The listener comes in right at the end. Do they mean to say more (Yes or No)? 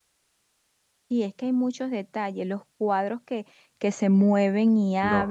Yes